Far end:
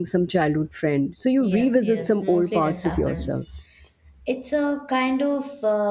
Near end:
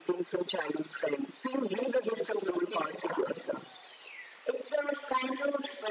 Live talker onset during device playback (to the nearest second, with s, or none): none